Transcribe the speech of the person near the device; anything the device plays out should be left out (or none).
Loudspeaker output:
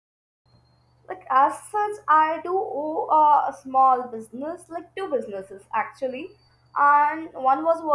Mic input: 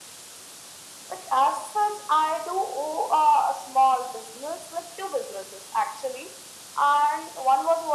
none